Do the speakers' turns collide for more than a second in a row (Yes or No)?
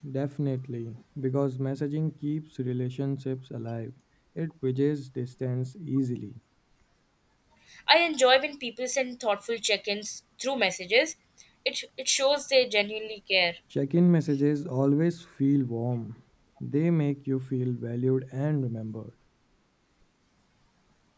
No